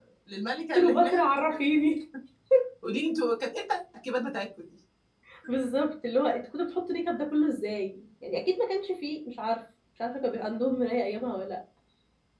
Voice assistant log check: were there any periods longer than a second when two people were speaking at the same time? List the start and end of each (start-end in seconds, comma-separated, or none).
none